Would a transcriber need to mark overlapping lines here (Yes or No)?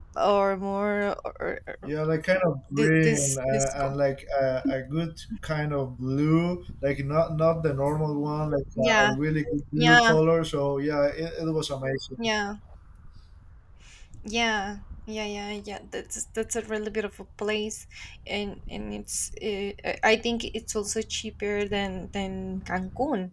Yes